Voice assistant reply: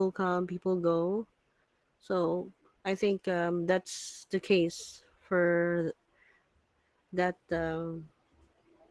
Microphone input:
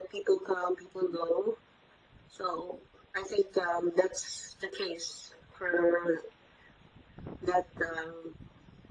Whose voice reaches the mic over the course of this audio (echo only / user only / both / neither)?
echo only